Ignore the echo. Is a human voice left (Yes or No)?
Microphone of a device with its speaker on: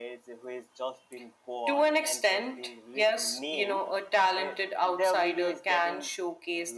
No